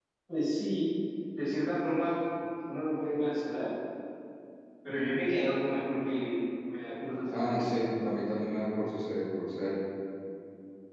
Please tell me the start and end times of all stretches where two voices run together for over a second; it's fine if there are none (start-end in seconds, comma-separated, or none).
none